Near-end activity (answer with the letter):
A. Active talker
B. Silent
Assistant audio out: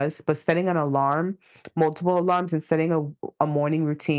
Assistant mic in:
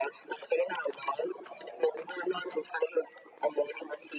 B